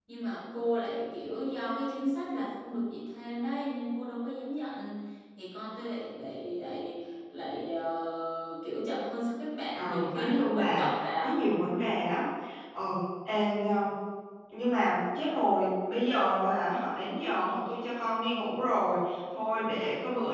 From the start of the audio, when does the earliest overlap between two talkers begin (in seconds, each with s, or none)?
9.7 s